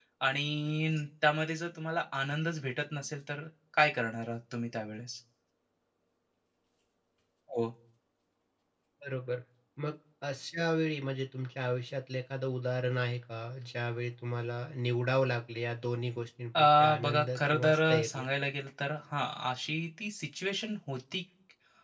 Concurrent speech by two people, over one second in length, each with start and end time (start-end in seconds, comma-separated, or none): 16.6-18.2